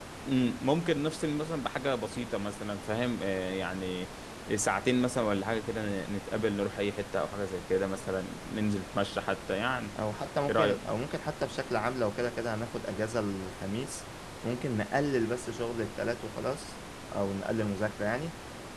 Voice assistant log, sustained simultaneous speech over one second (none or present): none